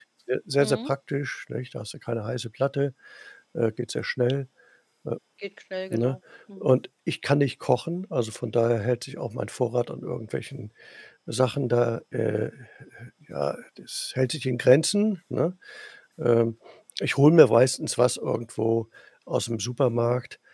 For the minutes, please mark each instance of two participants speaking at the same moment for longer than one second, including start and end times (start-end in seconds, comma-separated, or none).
none